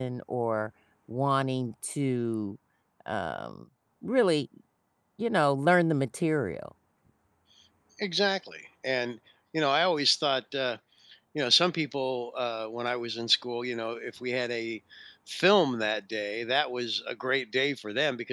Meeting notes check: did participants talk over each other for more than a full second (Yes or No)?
No